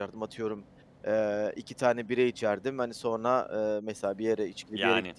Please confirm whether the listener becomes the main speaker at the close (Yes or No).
No